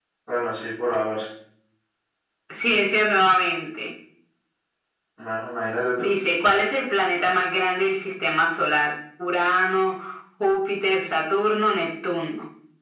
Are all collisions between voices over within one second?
Yes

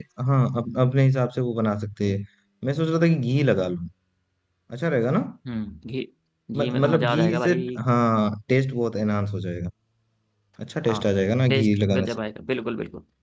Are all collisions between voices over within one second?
No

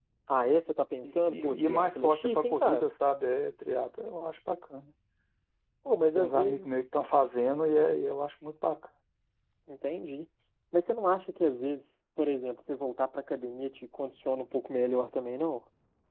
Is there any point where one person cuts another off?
Yes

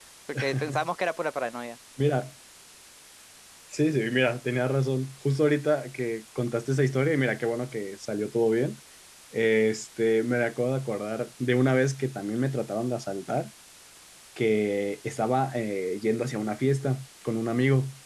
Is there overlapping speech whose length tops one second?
No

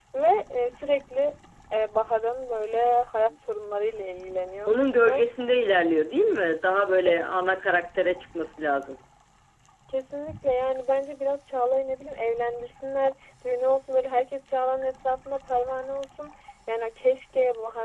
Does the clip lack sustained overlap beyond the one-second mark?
Yes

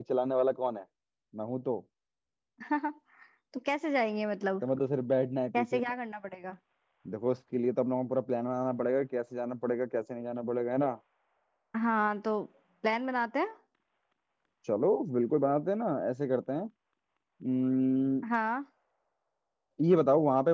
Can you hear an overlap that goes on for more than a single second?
No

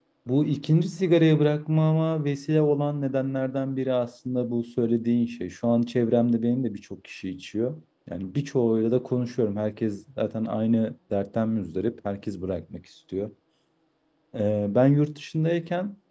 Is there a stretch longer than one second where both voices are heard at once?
No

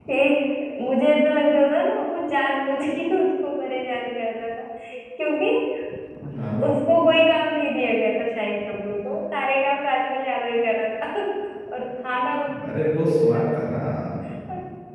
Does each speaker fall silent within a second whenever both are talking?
Yes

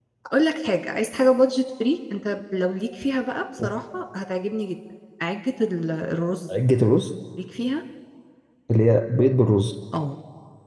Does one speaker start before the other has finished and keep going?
No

